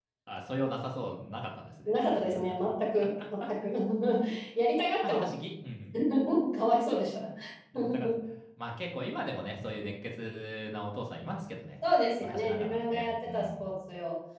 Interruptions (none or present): present